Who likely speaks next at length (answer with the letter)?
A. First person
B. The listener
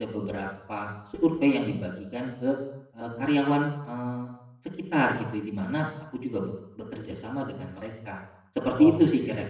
B